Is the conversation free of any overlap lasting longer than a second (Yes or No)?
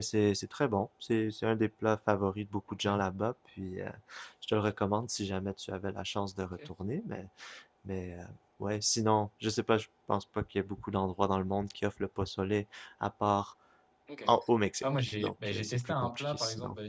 No